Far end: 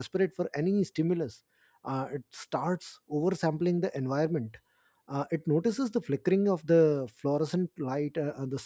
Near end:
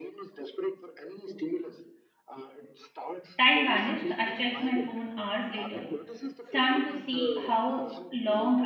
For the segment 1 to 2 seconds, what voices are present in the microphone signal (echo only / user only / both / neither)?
echo only